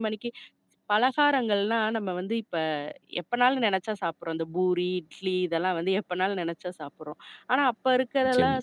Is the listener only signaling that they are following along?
Yes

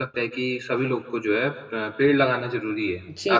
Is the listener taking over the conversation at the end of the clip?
Yes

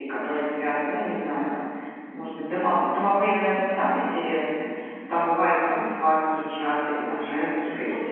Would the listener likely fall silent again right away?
No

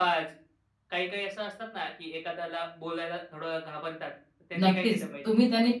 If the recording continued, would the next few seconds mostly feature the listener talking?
Yes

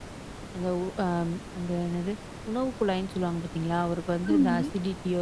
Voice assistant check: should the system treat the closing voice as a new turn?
No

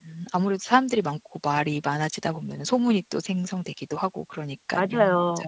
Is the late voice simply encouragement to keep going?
No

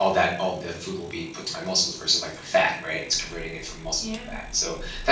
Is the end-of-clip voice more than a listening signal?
No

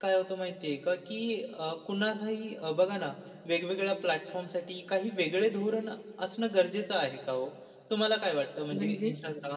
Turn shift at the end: No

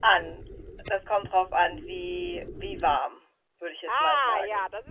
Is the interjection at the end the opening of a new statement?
Yes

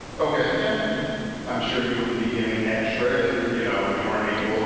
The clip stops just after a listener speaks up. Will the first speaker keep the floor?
No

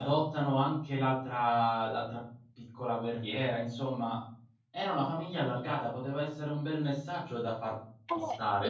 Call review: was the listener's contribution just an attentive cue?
No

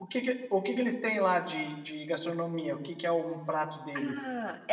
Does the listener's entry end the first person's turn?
Yes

